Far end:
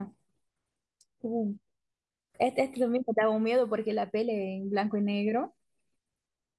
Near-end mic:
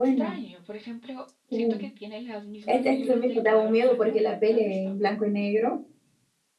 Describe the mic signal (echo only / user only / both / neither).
both